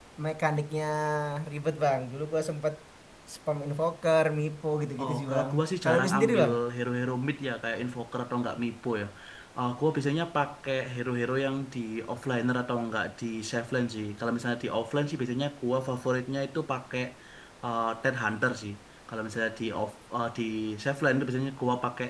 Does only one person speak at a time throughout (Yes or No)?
No